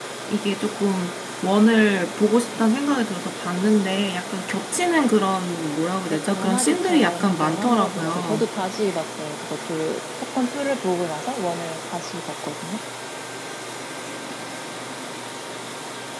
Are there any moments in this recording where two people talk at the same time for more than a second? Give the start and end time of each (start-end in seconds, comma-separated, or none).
6.1-8.4